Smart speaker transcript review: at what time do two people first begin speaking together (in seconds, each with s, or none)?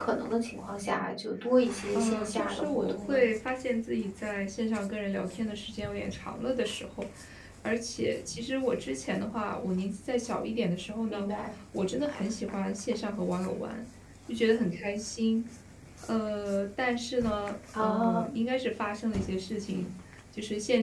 1.9 s